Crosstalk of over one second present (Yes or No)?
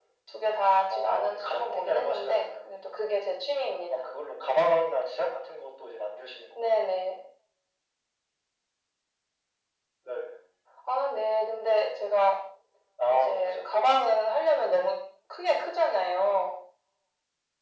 Yes